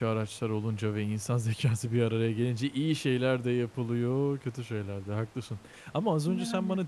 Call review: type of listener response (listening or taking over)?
listening